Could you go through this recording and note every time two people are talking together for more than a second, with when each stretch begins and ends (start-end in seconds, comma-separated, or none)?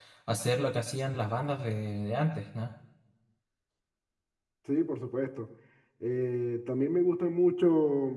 none